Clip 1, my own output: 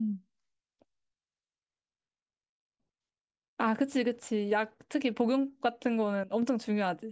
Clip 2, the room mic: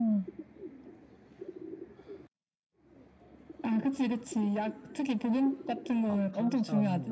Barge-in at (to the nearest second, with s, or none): 6 s